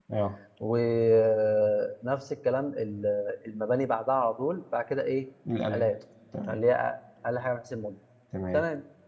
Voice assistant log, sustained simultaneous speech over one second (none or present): none